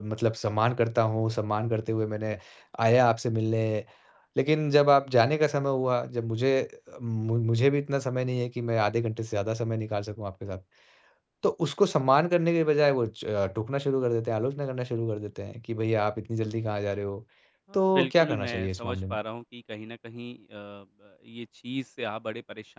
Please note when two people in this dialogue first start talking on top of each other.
17.7 s

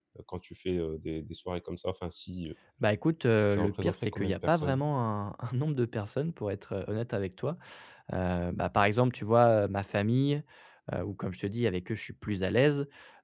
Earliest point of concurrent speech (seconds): 3.6 s

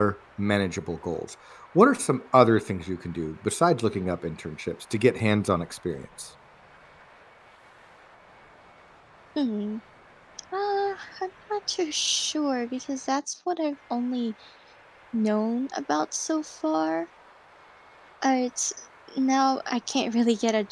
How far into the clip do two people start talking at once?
none

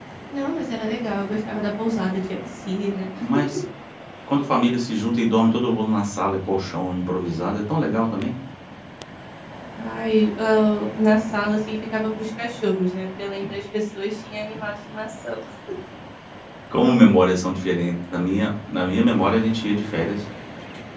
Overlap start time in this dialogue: none

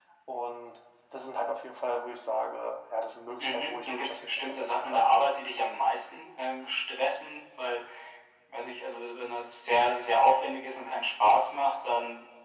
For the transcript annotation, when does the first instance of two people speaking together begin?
3.4 s

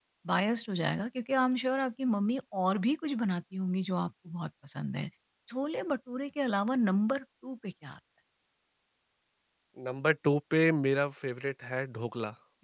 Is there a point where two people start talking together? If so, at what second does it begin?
none

